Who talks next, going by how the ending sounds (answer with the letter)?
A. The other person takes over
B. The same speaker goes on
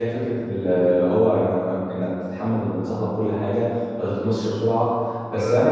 B